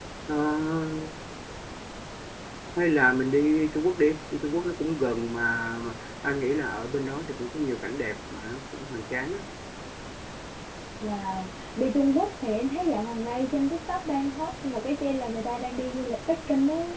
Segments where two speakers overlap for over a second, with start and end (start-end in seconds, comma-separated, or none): none